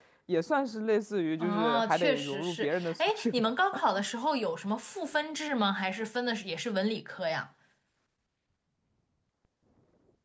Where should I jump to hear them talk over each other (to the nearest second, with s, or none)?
1 s